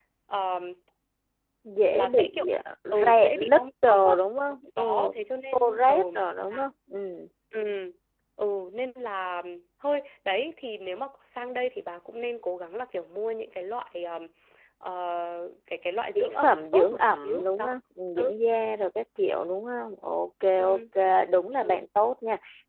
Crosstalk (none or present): present